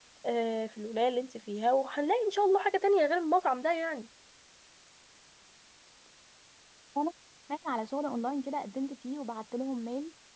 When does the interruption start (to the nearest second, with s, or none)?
none